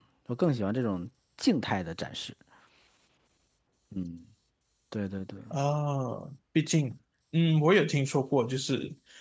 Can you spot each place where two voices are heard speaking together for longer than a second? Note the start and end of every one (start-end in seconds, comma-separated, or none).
none